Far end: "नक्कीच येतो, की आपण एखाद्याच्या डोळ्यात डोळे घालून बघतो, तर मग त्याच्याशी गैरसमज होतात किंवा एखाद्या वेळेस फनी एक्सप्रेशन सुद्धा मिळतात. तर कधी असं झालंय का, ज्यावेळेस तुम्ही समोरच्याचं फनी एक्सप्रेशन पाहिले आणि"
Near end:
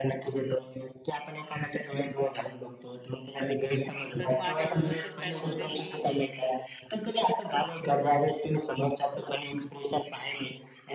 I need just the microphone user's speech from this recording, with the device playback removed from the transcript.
तर माझ्या बोलण्याच्या स्टाईलमध्ये मी

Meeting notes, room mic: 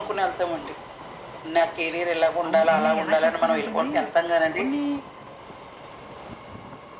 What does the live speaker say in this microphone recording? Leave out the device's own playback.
అవును. నేను ఎలా చేస్తానంటే అండి, కొన్ని

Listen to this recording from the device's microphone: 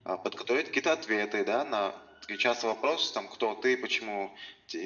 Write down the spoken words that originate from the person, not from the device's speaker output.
none

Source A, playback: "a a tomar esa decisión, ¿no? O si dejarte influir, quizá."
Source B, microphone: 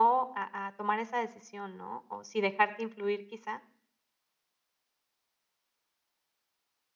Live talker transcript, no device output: none

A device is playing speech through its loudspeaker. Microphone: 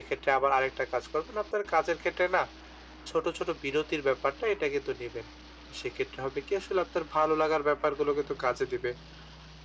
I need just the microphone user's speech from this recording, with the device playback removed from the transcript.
none

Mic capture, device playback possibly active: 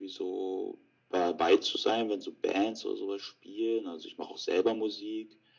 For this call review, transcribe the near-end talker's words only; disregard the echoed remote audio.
none

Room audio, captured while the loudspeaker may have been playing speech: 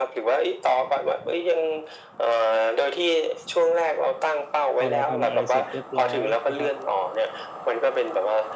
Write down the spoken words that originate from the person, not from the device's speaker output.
พอเราทำอะไรเสร็จเรียบร้อยนะครับ

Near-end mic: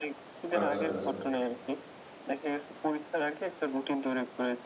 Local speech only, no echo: আচ্ছা, আচ্ছা।

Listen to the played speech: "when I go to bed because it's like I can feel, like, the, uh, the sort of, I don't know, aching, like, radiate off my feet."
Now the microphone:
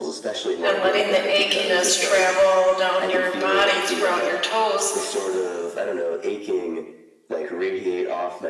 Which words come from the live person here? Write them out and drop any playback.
and letting the achiness travel down your body throughout your toes

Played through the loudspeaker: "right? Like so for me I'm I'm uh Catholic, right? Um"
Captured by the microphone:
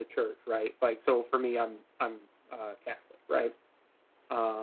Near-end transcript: none

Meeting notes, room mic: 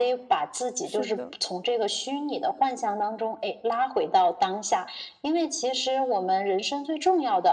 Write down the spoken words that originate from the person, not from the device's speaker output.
是的，

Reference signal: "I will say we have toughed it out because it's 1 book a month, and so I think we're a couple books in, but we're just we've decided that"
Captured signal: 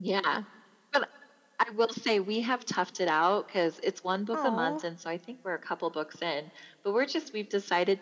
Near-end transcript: Oh.

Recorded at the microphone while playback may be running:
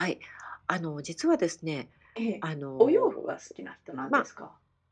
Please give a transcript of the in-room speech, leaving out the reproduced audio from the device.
ええ、お洋服は好きな人なんですか？

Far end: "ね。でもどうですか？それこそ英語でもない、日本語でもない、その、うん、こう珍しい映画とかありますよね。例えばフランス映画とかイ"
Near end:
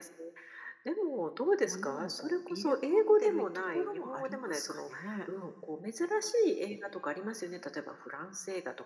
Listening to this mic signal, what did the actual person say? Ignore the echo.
ものをこう入れ込んでるところもありますかね？

